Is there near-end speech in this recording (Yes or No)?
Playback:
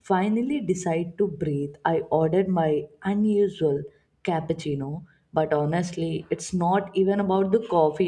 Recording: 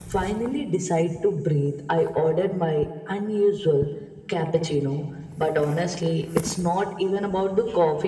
No